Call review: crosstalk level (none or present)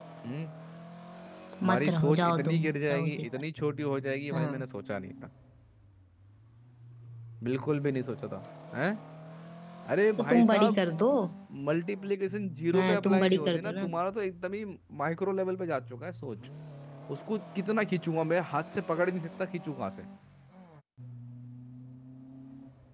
present